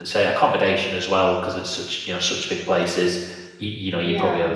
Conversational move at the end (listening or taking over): listening